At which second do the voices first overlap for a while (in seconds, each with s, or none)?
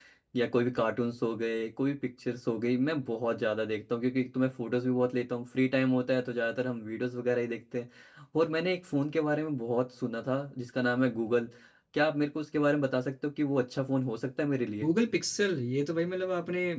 none